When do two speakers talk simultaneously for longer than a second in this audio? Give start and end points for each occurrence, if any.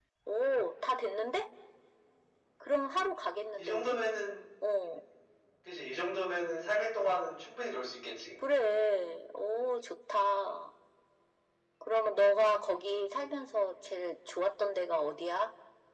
none

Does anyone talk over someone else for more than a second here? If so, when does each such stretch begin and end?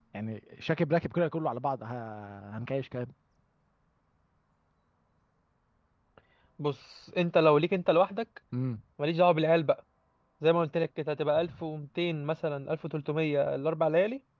none

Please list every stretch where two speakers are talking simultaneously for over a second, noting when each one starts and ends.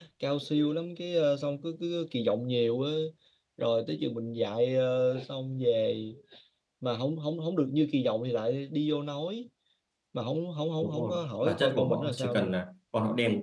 10.8-12.5

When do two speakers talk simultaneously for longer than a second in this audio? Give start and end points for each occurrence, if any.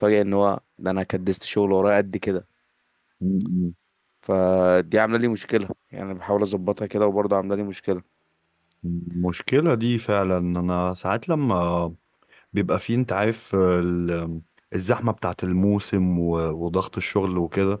none

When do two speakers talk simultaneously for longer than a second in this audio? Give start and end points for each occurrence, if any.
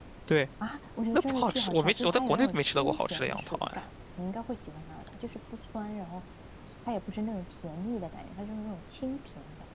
1.1-3.8

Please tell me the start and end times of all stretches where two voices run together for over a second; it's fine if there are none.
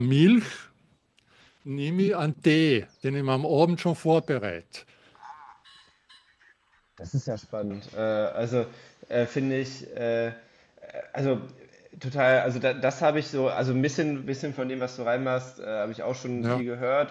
none

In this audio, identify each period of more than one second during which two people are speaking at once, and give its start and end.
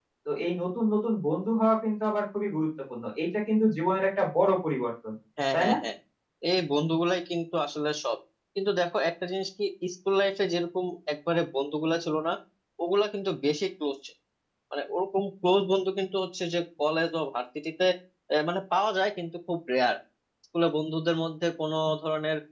none

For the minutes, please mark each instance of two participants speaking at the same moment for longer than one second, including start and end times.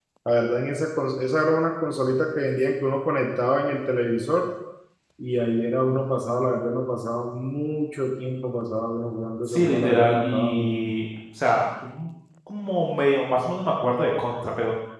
9.4-10.9

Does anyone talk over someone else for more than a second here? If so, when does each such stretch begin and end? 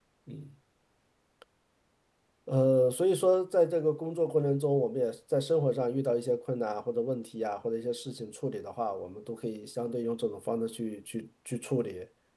none

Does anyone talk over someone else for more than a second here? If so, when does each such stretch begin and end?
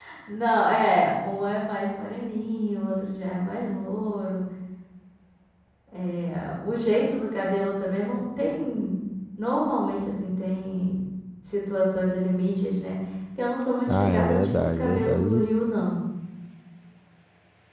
13.9-15.4

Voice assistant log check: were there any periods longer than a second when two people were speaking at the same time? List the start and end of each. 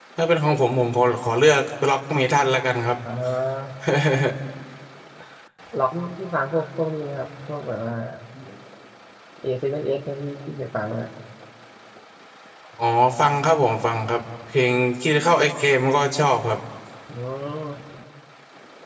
none

